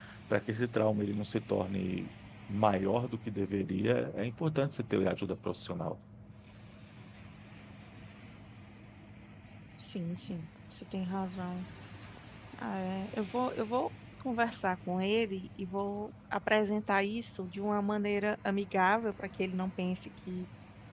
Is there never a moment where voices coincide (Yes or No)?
Yes